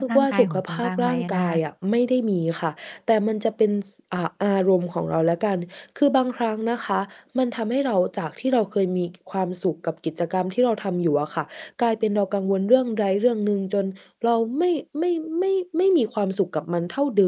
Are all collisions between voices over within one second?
No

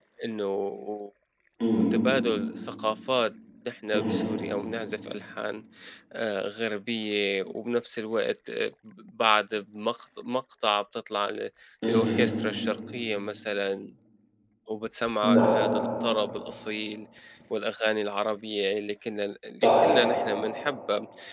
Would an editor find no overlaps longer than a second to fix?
Yes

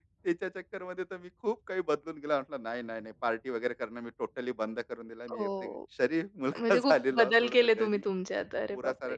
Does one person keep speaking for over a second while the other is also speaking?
Yes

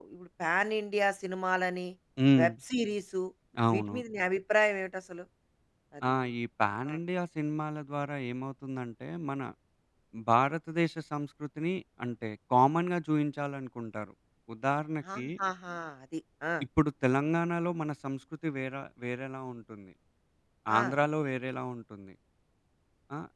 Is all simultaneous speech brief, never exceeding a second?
Yes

